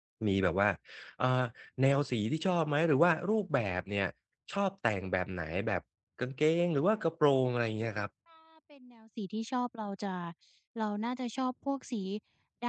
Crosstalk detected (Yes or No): No